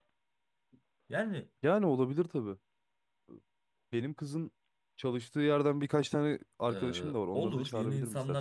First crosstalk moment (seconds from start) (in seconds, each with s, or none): 6.7 s